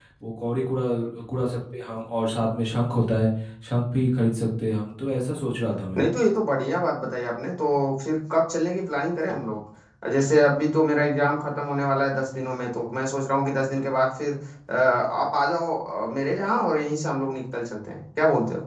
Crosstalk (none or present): none